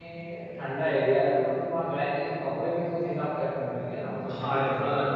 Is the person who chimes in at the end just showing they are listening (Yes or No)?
No